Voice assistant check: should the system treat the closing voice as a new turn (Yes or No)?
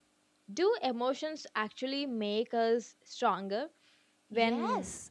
Yes